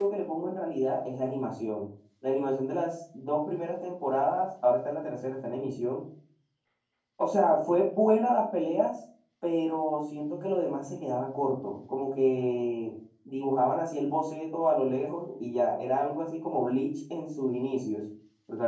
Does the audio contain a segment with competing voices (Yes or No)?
No